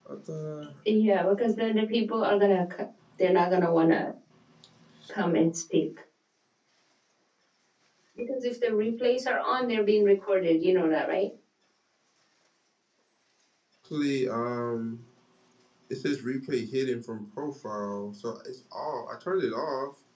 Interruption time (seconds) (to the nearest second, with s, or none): none